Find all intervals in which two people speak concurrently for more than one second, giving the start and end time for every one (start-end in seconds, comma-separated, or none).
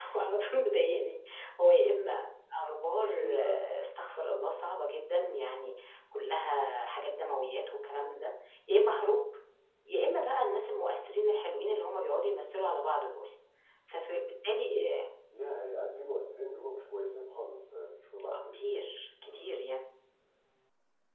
none